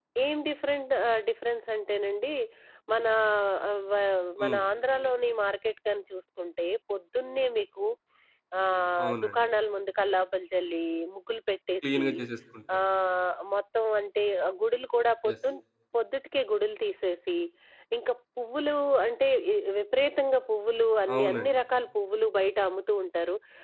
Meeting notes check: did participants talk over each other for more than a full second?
No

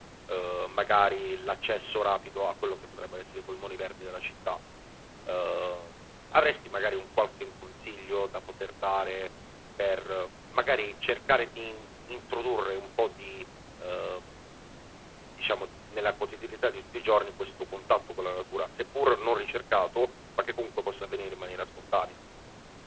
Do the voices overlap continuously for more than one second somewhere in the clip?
No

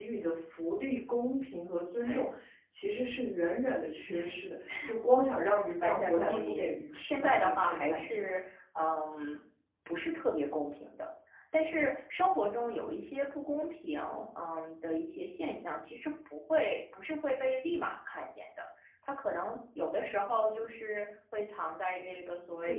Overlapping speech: Yes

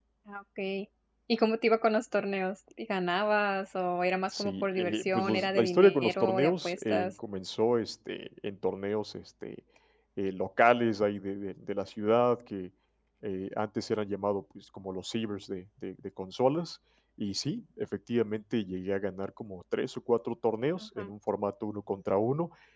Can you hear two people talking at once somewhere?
Yes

